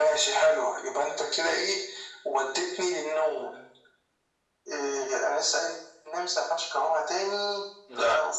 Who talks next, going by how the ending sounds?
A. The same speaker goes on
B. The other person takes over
A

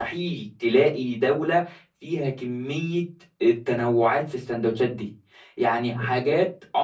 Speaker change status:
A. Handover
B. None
B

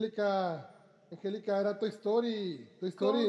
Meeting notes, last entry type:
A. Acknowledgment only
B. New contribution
A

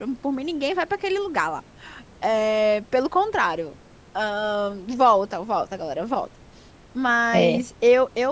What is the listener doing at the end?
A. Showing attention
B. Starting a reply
A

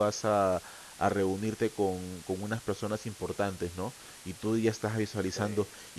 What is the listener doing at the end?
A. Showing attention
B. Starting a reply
A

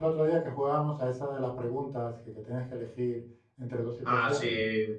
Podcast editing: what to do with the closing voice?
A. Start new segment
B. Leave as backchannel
A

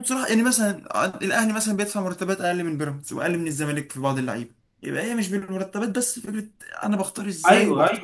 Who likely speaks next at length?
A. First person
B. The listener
B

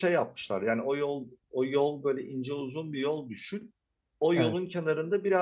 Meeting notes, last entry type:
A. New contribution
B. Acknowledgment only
B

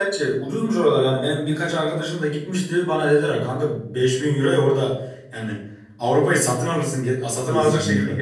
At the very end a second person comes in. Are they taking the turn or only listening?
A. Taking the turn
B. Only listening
A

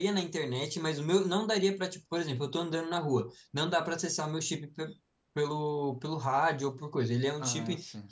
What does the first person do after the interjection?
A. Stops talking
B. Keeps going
B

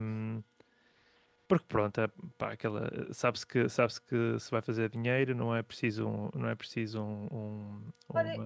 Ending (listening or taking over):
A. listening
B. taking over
B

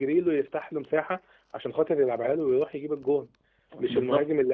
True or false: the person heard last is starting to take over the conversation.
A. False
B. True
A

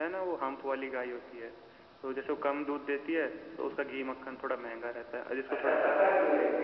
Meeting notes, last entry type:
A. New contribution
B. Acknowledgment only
A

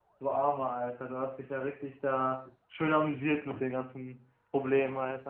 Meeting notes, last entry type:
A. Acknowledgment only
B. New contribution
B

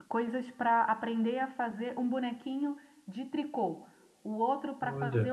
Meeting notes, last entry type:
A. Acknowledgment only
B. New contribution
A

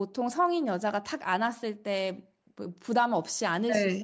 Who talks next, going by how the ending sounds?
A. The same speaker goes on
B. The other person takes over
B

